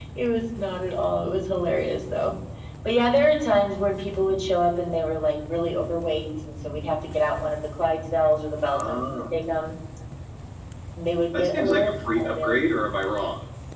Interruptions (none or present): present